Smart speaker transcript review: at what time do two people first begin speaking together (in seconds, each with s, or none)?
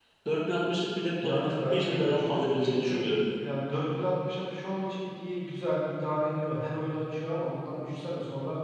1.2 s